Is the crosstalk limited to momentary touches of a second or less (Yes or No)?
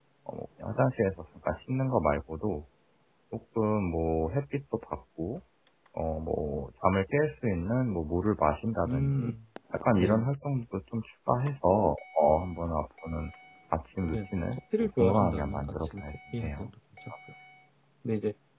No